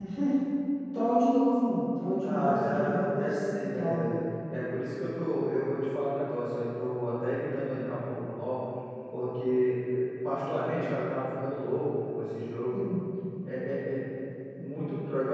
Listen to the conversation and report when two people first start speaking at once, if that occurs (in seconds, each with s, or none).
2.2 s